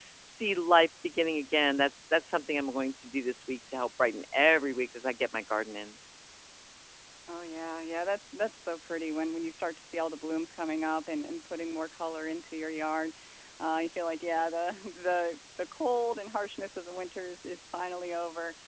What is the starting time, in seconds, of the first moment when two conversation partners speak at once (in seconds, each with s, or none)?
none